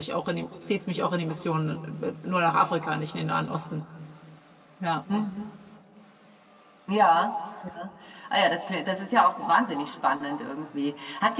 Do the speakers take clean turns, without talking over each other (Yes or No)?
Yes